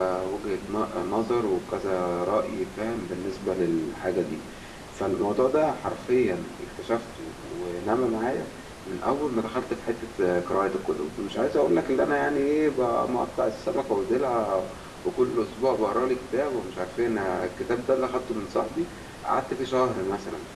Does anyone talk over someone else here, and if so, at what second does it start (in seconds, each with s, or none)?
none